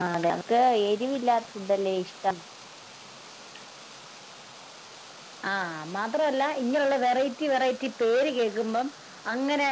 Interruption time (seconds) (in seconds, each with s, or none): none